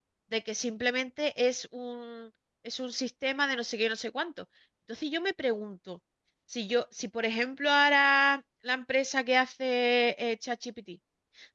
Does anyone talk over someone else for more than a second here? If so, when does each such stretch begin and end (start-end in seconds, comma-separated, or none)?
none